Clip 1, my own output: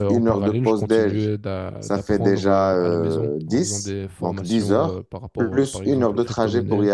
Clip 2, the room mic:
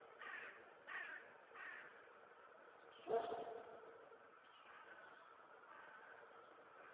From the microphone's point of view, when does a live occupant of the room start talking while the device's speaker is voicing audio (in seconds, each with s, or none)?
none